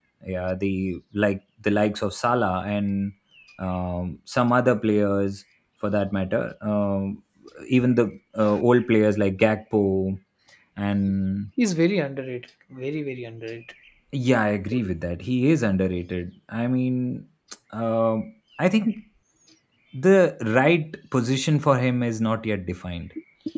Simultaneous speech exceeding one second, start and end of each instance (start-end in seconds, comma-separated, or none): none